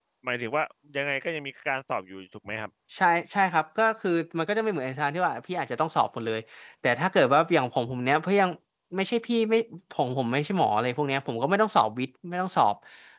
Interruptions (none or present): none